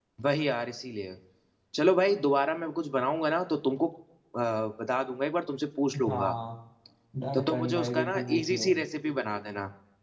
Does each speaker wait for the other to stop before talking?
No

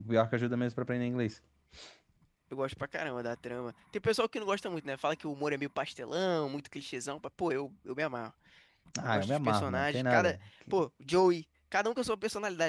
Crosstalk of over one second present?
Yes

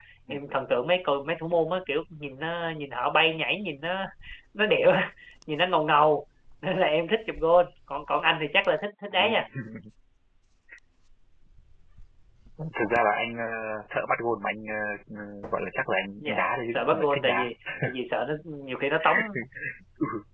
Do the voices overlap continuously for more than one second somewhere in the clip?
Yes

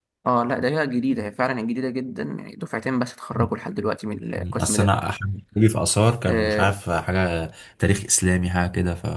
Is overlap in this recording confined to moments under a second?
Yes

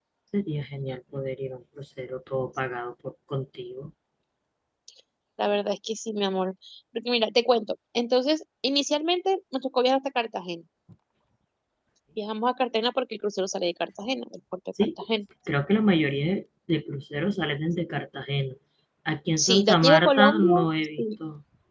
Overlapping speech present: Yes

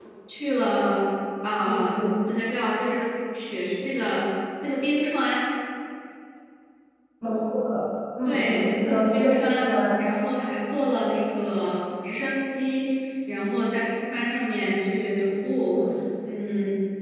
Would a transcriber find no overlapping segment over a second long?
No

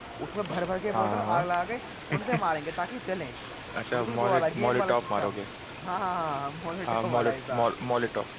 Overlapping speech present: Yes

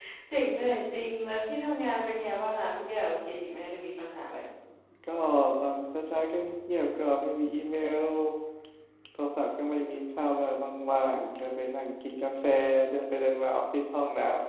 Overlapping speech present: No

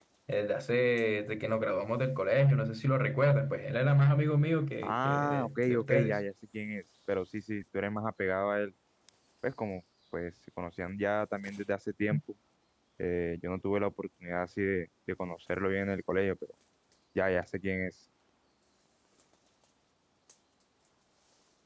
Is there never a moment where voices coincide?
No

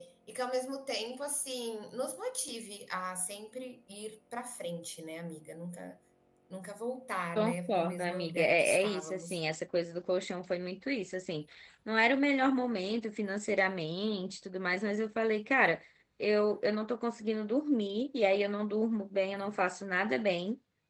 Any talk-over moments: Yes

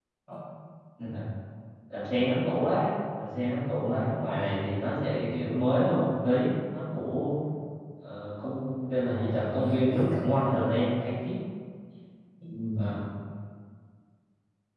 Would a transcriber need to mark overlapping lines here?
Yes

